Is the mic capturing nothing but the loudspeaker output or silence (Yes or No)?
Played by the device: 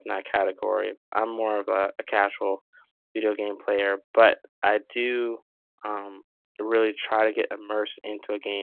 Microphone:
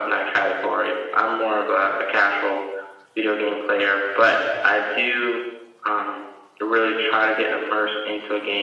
Yes